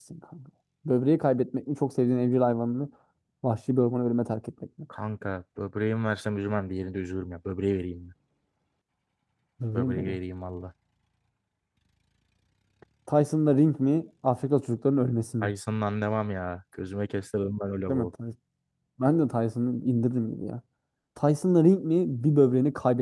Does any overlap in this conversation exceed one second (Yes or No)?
No